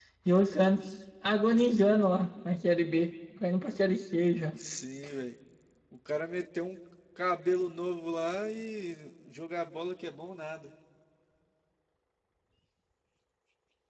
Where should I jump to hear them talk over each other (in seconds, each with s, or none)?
none